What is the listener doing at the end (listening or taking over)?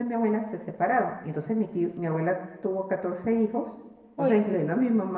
listening